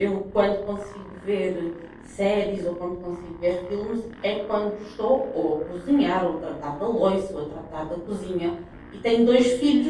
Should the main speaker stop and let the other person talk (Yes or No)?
No